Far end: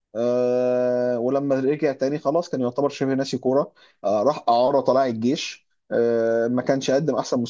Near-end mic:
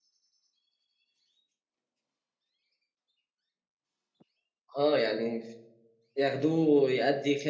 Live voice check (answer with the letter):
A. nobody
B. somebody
B